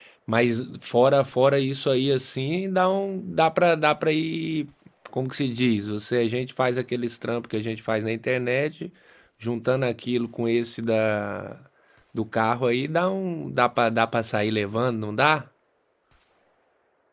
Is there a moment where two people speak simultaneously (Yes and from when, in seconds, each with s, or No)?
No